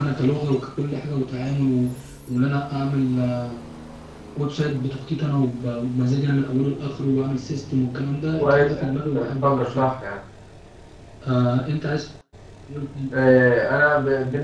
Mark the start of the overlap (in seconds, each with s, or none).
8.4 s